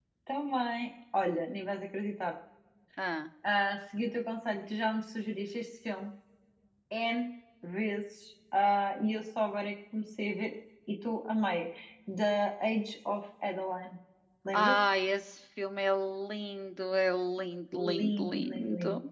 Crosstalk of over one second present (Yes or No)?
Yes